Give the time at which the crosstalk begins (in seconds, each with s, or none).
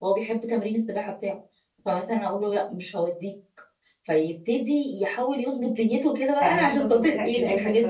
6.4 s